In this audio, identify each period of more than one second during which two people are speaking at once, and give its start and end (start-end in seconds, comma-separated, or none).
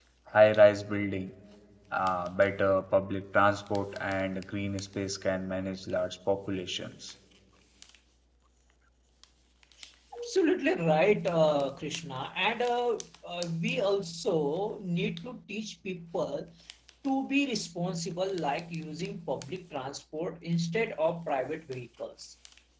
none